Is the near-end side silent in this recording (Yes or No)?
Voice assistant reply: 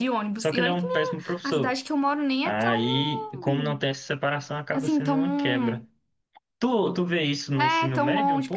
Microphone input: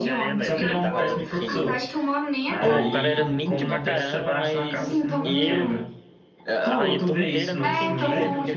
No